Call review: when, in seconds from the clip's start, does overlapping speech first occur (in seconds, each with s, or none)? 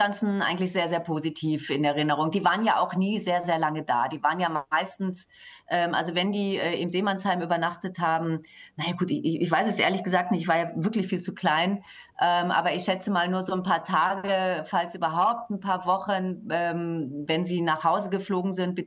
none